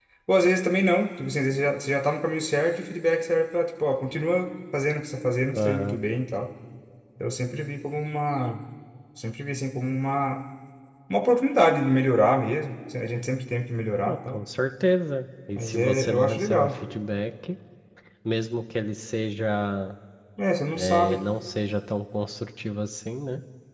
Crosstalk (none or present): present